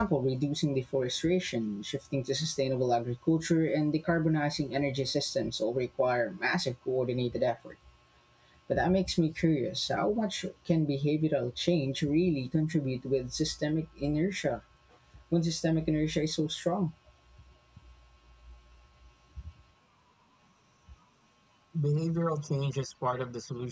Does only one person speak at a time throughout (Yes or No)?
Yes